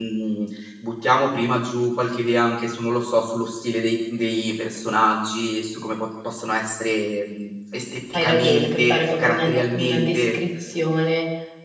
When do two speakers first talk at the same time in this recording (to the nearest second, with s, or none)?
8 s